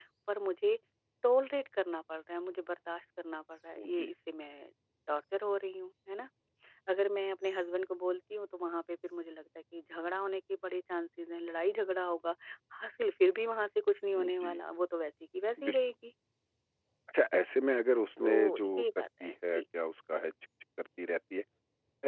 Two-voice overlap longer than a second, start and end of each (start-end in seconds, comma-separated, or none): 18.2-19.6